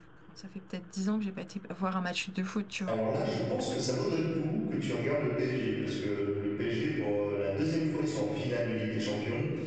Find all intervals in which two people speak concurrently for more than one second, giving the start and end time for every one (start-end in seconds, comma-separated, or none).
none